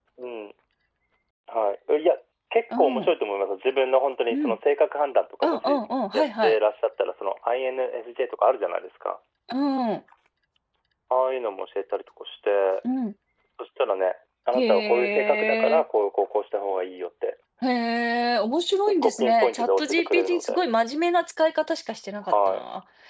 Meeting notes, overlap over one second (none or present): present